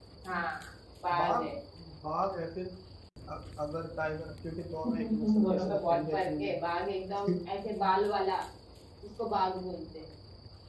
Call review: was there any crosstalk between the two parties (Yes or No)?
Yes